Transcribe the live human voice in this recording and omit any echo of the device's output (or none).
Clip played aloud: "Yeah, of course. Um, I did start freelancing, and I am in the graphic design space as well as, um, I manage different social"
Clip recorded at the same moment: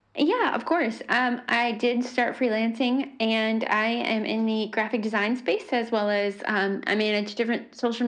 none